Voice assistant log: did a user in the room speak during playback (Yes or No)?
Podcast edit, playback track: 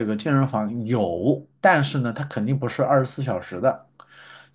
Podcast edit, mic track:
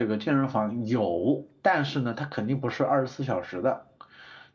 No